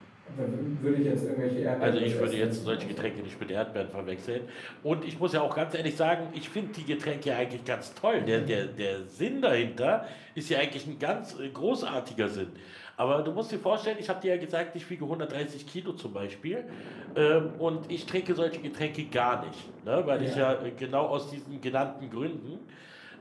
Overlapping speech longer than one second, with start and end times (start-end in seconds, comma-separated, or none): 1.8-3.1